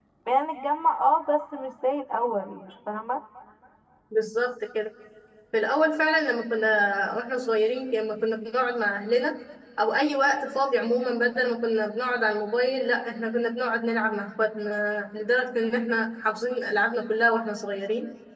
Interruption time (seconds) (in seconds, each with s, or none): none